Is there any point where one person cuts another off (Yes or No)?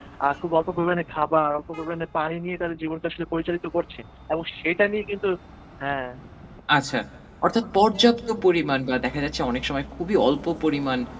No